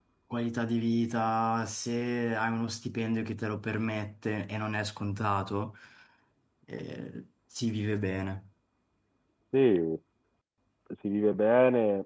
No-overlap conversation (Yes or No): Yes